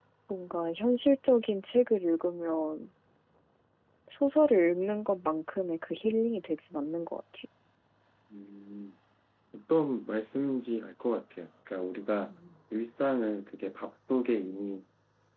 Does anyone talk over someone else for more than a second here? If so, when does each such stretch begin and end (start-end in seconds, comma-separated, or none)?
none